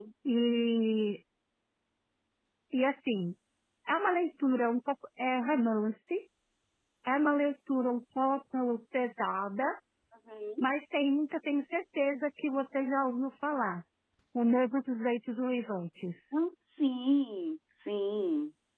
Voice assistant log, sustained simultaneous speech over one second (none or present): none